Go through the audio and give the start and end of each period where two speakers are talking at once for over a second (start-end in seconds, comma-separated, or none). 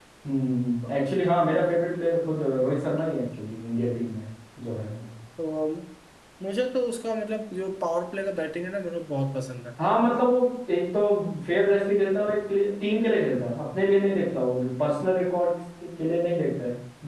none